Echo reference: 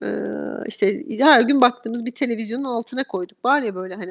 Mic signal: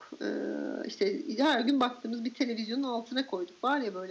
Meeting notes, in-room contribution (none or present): none